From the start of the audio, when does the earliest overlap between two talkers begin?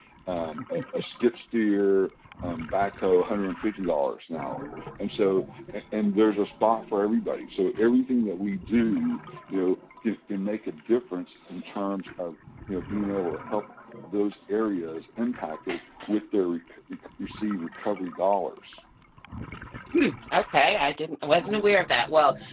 none

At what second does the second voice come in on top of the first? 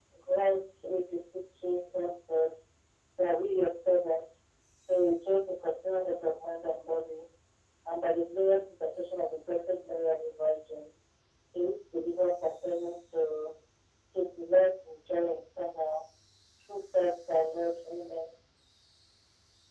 none

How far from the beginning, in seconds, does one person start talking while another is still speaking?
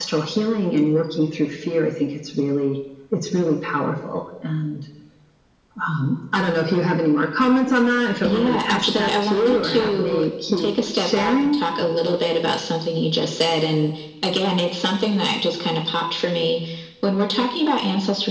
8 s

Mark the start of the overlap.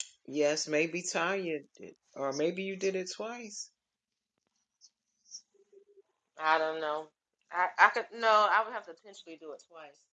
none

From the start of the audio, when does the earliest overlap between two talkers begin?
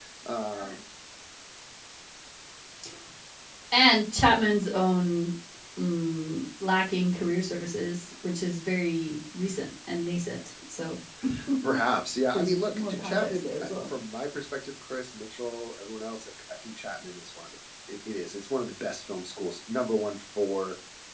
12 s

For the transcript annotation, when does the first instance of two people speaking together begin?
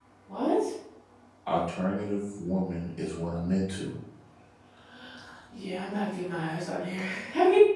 none

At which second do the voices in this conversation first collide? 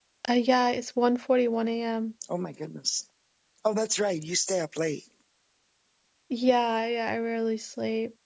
none

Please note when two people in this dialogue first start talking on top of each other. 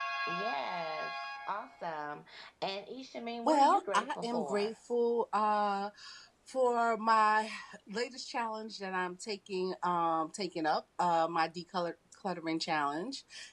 3 s

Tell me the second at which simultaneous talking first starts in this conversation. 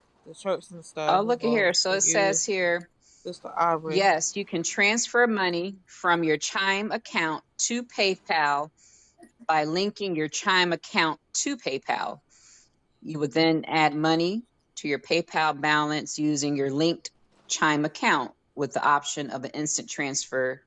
1 s

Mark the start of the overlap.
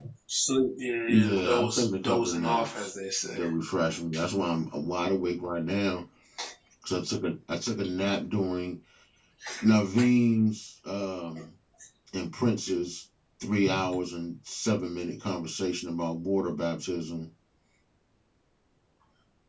1 s

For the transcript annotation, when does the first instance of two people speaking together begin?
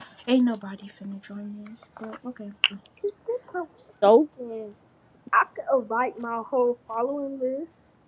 none

